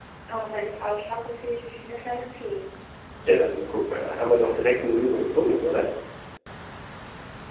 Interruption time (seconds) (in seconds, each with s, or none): none